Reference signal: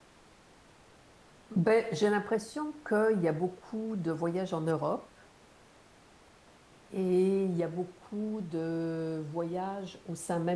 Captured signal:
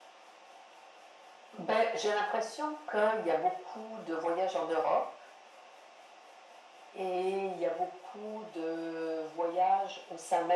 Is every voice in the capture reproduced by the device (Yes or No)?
Yes